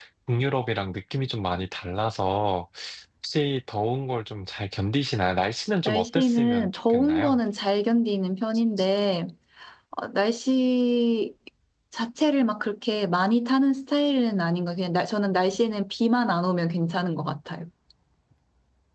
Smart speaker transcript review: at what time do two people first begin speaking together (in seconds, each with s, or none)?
5.8 s